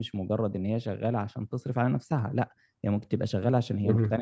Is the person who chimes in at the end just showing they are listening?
Yes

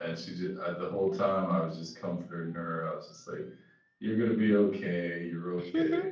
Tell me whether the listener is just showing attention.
Yes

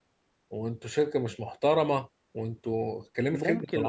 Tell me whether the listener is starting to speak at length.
Yes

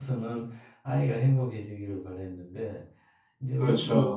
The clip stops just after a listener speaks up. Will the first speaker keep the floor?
Yes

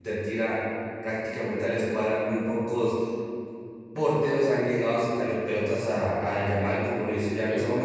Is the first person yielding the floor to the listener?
No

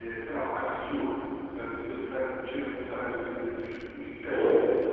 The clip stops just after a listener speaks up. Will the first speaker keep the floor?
No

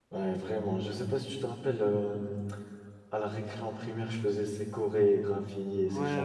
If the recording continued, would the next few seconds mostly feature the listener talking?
Yes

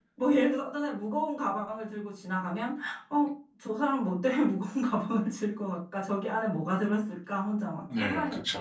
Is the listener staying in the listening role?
No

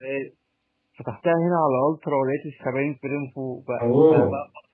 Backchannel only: Yes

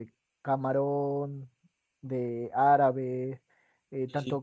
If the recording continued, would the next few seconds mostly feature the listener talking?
No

